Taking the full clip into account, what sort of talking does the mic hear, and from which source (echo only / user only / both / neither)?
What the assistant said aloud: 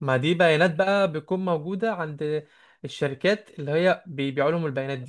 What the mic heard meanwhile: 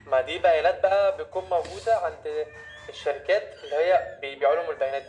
echo only